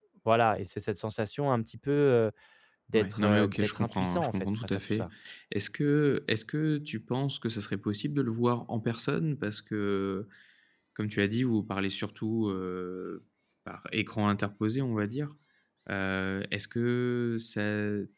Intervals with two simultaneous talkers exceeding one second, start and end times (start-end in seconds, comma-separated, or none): 2.9-5.1